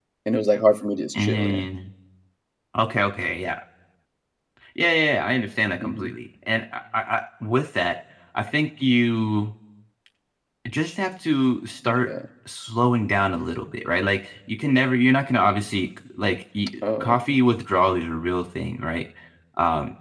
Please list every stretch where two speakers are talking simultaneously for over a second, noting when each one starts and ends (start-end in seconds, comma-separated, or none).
none